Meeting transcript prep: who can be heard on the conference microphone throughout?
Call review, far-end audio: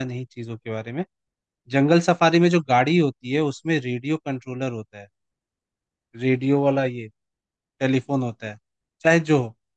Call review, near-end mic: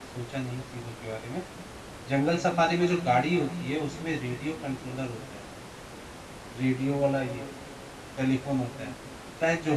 echo only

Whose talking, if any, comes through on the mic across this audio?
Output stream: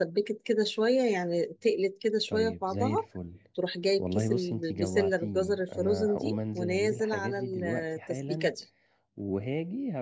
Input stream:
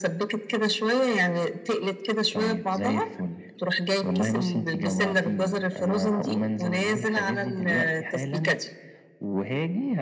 echo only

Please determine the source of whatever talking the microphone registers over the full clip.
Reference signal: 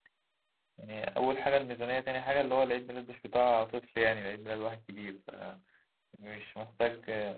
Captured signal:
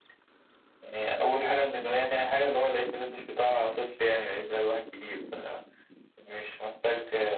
echo only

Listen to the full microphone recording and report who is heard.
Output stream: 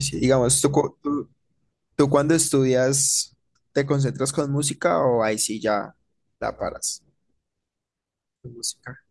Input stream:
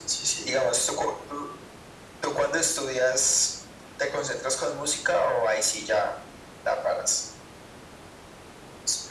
echo only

